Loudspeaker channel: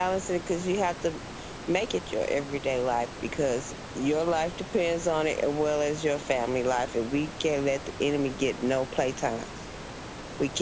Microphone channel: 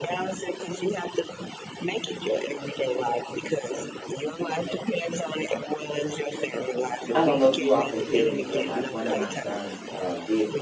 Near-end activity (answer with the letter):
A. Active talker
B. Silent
A